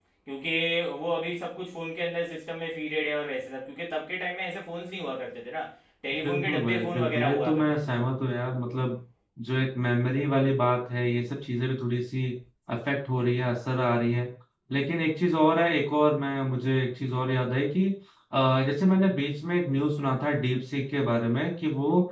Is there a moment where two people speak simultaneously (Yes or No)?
Yes